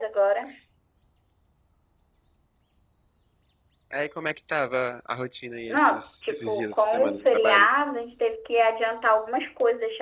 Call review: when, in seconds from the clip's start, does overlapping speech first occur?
5.7 s

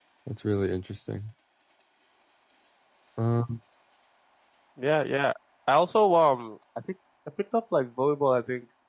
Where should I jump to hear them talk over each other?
none

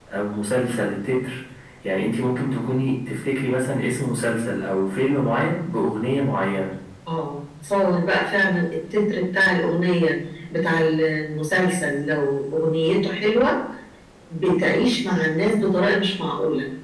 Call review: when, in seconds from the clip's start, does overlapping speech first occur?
none

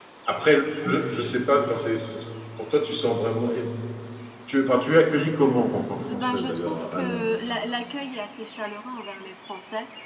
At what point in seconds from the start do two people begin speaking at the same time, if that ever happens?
6.1 s

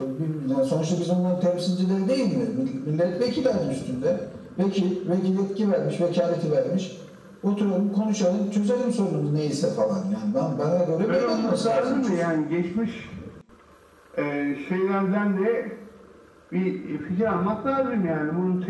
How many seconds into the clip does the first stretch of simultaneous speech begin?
11.1 s

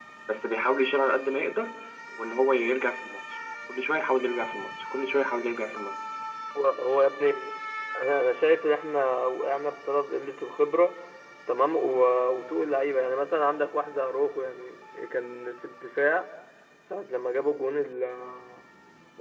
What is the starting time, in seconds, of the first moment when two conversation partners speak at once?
none

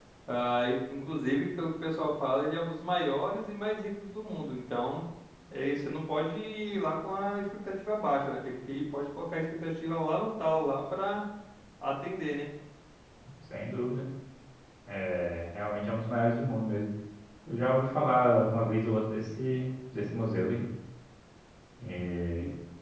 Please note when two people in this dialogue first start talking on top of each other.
none

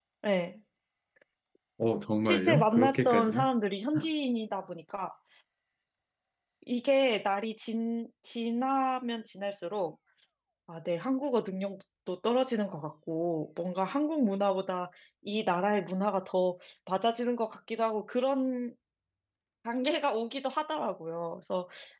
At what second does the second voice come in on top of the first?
2.2 s

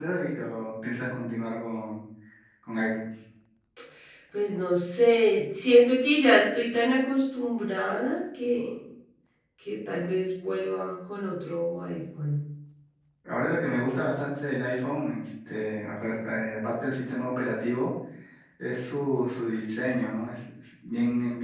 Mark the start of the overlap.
none

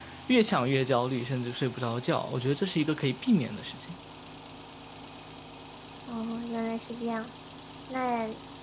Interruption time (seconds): none

